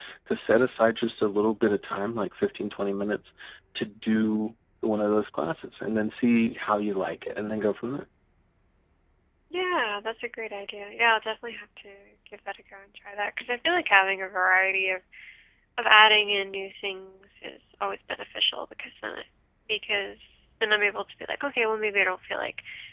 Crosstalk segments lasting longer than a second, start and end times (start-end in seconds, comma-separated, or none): none